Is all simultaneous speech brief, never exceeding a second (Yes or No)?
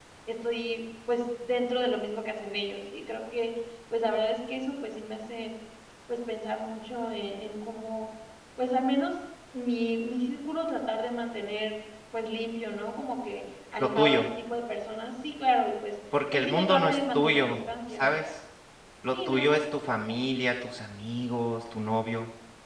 No